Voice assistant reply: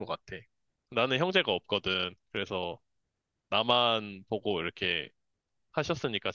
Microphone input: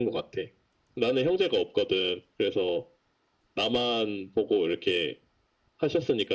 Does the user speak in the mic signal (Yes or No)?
No